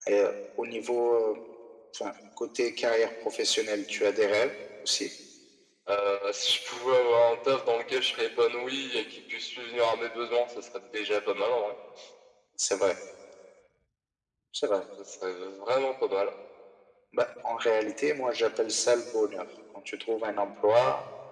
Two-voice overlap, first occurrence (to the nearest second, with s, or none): none